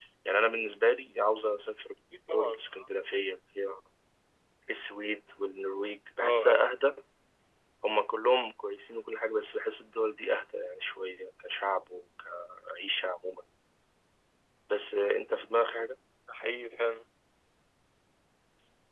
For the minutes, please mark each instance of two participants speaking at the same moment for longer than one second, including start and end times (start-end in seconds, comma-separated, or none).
none